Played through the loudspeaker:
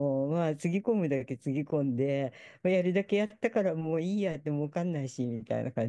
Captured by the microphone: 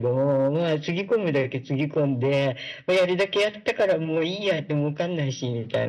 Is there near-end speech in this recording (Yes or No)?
No